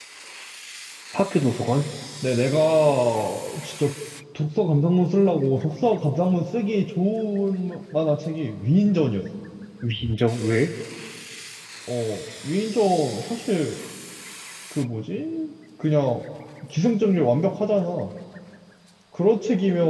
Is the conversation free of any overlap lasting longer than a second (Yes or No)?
Yes